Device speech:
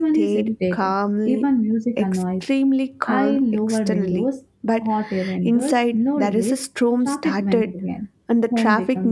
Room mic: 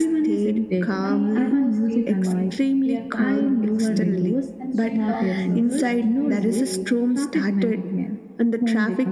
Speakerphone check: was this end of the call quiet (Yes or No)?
No